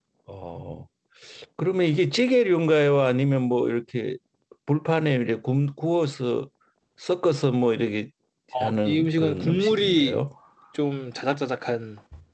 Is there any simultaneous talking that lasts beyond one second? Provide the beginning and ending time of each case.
8.6-10.2

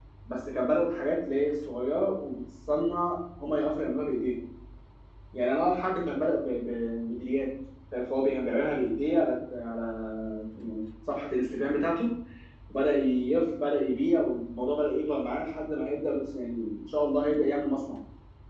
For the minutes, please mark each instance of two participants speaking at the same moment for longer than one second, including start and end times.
none

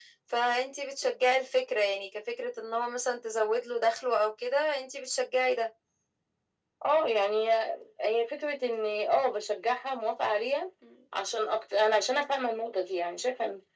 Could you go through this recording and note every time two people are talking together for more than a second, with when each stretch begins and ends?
none

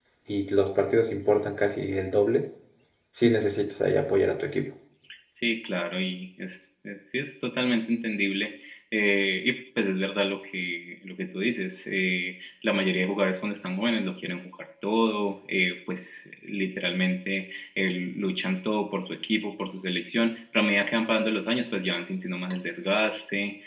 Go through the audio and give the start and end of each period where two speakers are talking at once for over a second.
none

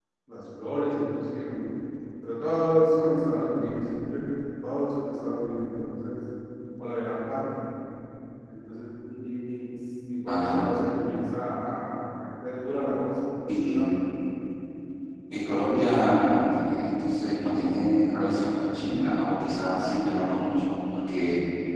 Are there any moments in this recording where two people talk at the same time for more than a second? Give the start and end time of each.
none

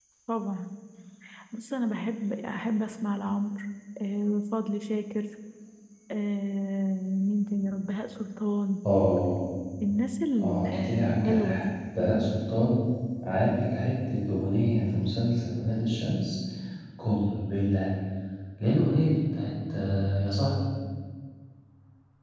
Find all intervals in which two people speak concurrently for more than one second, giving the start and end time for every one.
10.4-11.7

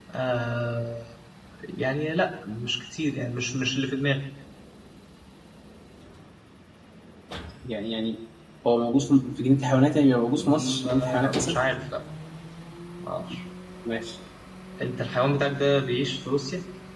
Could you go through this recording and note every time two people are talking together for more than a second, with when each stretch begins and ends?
10.4-11.6

